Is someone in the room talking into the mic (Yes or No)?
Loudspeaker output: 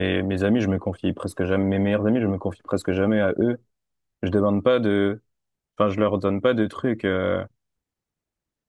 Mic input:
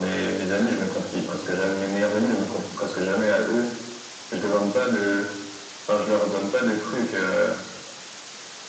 No